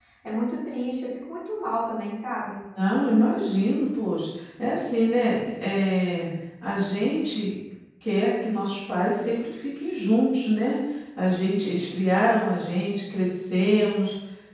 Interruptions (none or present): none